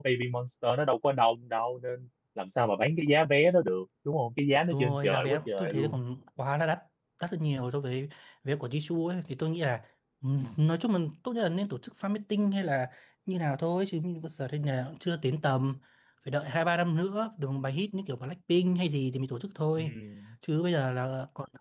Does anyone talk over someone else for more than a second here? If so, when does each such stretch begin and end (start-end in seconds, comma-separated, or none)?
4.7-6.0